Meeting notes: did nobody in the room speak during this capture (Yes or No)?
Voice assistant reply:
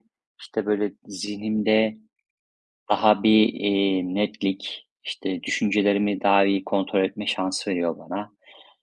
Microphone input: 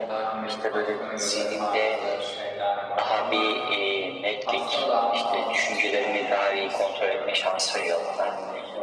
No